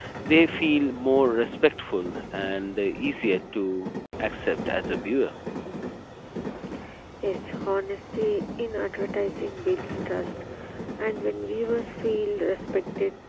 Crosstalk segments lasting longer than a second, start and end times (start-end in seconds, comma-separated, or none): none